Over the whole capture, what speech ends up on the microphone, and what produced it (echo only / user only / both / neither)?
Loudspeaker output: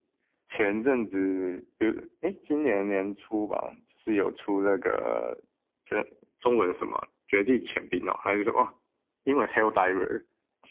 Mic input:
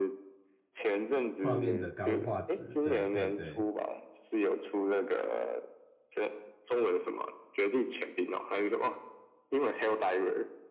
both